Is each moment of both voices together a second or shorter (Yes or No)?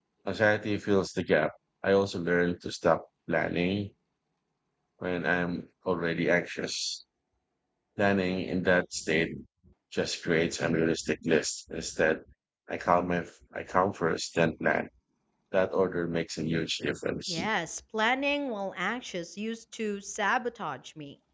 Yes